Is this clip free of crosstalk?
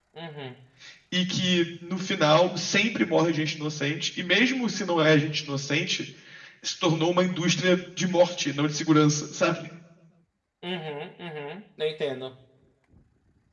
Yes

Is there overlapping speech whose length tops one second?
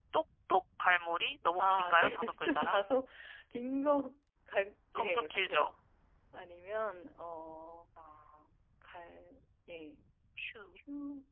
Yes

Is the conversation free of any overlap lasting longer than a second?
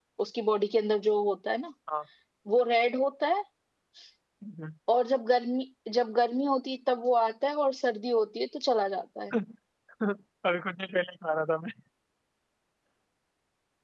Yes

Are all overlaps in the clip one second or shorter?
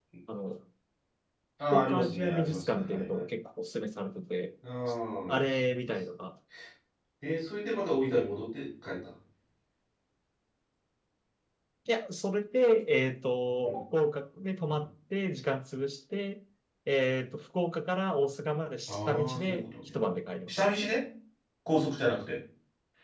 No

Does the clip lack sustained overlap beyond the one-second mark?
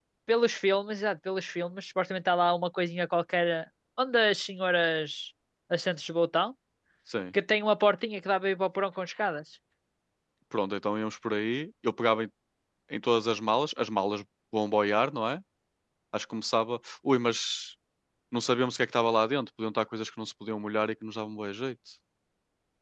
Yes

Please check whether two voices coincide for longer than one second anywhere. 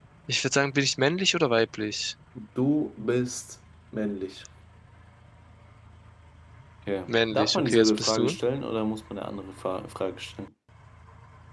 Yes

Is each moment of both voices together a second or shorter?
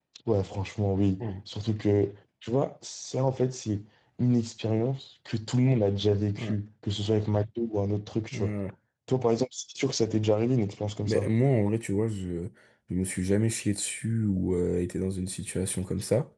Yes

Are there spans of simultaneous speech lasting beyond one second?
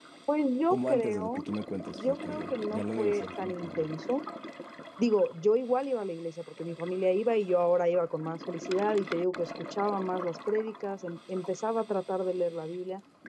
Yes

